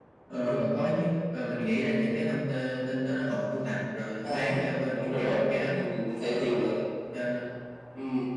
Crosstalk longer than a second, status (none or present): present